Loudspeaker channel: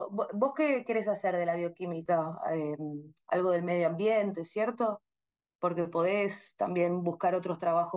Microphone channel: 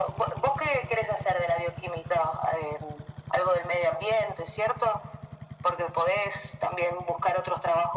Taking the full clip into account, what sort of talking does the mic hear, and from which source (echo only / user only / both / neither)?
echo only